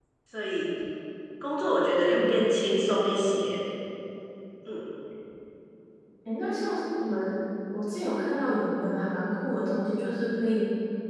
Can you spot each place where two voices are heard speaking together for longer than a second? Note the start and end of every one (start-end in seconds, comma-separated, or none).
none